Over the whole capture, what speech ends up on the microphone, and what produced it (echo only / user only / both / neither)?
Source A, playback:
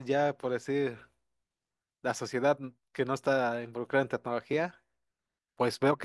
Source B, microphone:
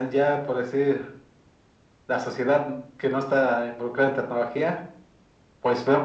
echo only